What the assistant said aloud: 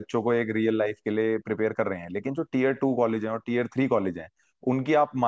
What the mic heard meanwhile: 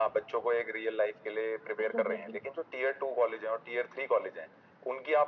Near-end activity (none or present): present